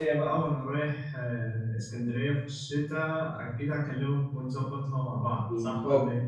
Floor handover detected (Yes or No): Yes